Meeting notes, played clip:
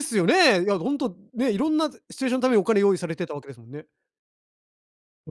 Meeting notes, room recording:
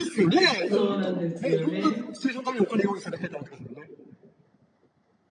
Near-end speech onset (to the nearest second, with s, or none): 1 s